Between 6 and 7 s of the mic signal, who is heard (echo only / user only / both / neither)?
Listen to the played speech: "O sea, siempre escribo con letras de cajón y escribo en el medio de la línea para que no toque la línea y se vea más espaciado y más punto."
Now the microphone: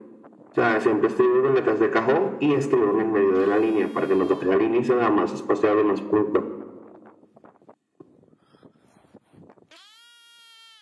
echo only